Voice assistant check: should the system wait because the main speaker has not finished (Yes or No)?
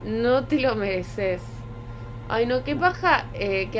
Yes